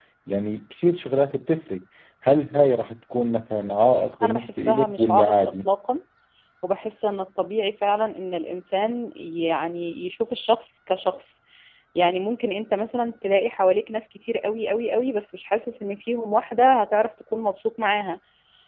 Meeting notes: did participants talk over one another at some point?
Yes, from 4.2 s

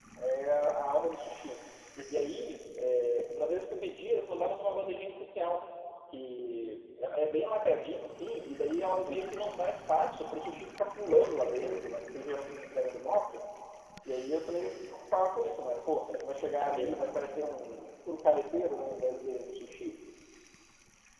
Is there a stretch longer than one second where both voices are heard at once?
No

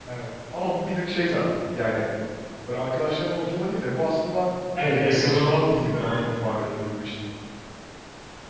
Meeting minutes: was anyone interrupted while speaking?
Yes, from 4.8 s

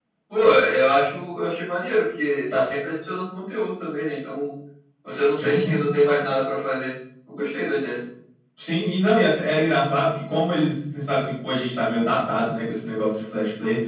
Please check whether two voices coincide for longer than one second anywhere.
No

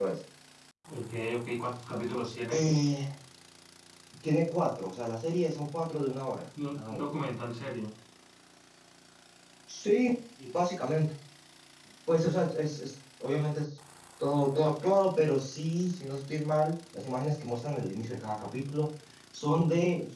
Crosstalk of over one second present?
No

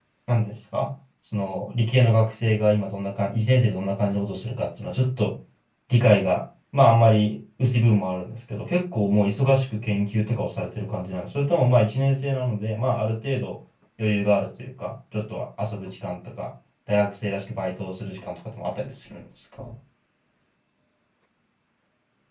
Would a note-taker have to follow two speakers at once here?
No

